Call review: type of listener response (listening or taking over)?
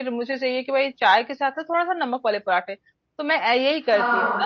listening